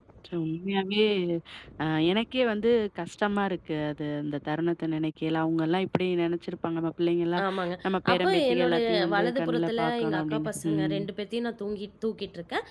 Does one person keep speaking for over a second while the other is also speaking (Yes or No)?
Yes